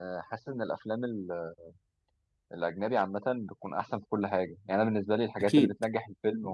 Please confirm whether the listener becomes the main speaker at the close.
No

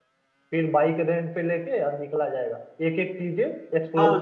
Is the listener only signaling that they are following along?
No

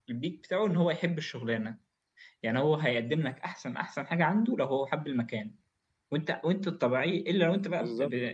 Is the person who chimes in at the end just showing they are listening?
Yes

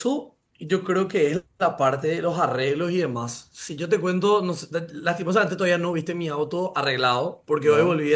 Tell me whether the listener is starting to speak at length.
No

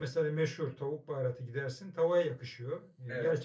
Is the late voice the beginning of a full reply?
No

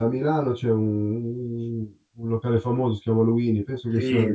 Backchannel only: No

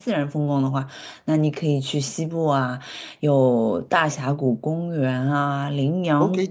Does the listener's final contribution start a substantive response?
Yes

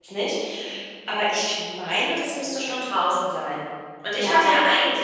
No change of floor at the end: Yes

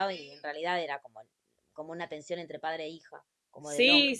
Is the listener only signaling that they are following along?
No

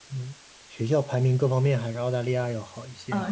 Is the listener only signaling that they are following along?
No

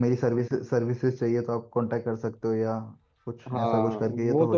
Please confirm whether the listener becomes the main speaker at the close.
Yes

